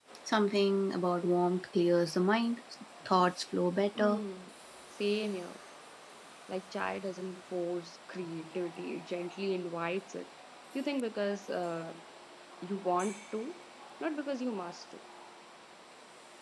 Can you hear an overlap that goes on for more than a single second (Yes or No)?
No